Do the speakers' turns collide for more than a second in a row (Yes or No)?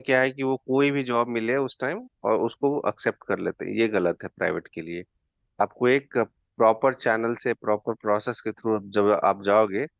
No